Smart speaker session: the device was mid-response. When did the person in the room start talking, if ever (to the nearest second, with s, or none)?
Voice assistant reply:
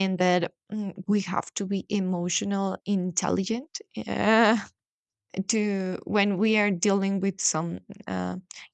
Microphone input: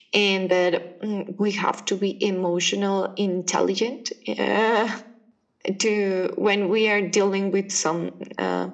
none